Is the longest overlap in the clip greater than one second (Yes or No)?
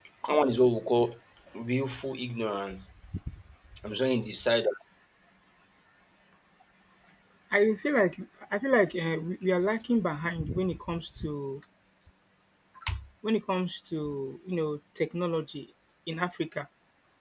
No